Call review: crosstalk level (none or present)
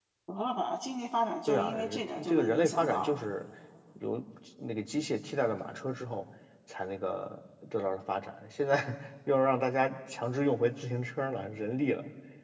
present